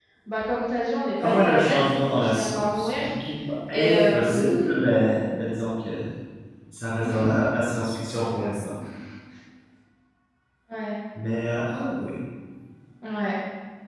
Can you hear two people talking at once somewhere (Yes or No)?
Yes